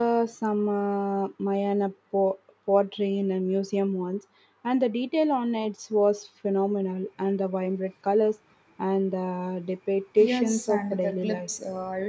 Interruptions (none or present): present